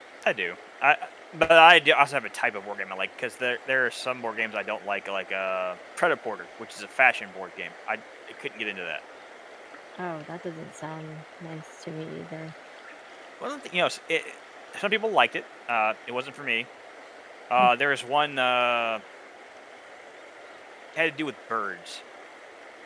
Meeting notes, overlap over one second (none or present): none